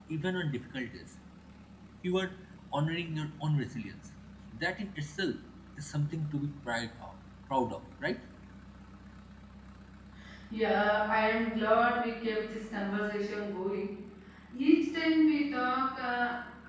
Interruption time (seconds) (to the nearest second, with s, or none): none